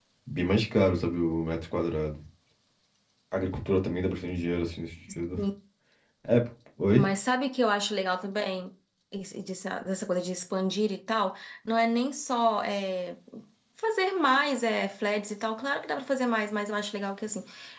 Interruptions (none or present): none